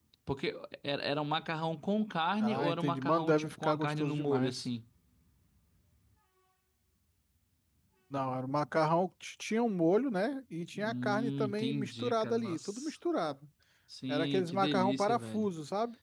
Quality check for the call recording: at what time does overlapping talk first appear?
2 s

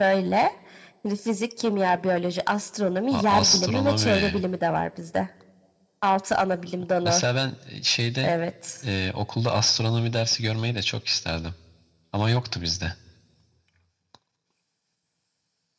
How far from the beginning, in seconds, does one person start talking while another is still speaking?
3 s

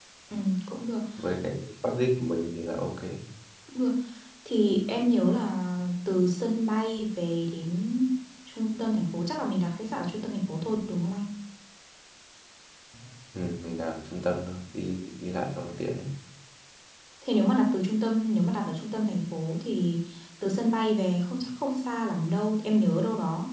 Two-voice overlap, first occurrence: none

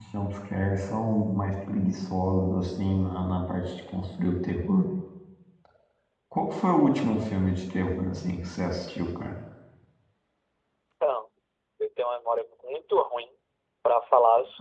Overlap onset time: none

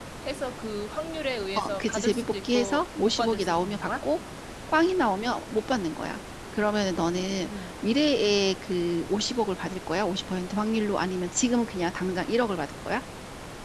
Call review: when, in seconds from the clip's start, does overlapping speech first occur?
2 s

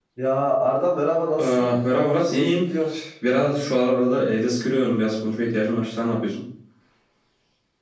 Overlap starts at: 1 s

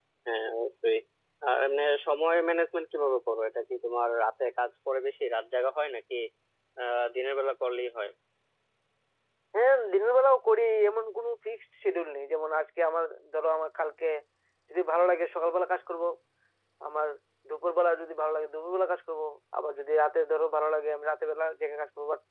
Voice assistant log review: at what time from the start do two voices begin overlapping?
none

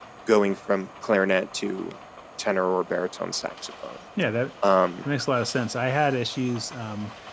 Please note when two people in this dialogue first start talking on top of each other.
none

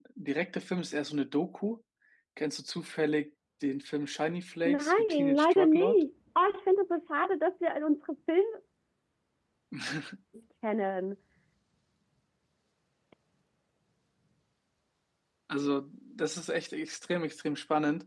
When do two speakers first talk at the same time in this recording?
5 s

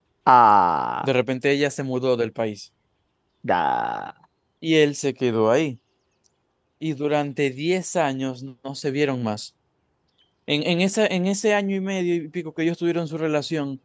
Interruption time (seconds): none

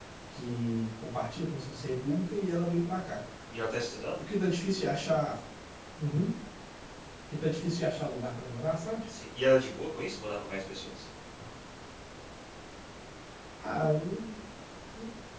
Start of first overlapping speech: none

